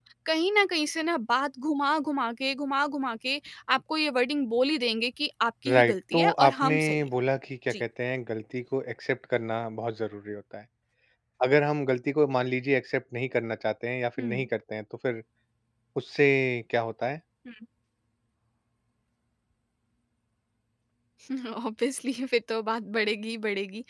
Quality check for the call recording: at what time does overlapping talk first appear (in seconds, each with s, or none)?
5.7 s